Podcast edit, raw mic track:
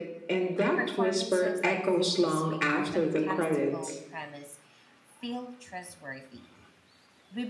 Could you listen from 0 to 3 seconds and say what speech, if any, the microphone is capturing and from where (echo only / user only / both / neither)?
both